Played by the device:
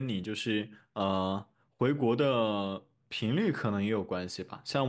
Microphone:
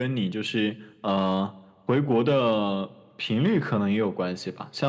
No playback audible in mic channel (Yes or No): No